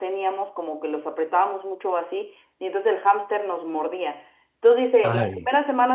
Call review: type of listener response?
listening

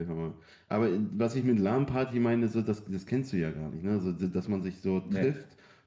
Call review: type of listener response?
listening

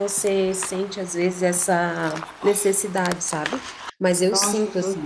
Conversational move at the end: taking over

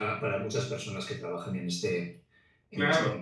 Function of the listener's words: taking over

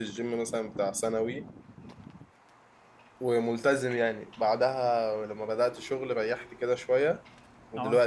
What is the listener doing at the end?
listening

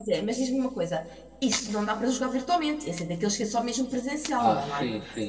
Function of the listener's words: taking over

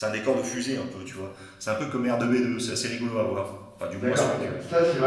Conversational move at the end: taking over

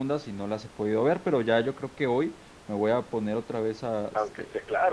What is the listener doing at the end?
taking over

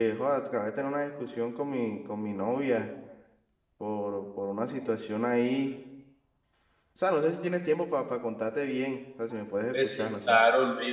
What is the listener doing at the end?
taking over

